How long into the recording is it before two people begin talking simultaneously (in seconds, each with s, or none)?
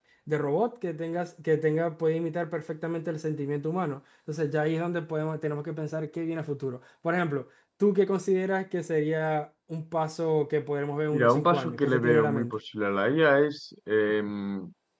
11.1 s